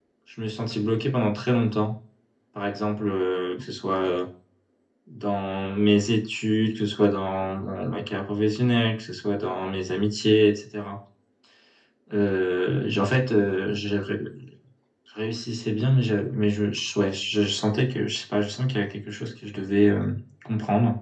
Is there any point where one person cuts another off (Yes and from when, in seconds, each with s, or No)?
No